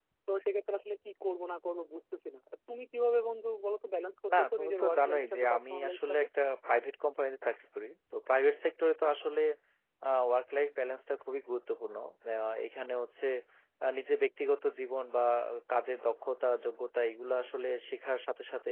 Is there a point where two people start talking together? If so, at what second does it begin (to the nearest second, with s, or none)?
4 s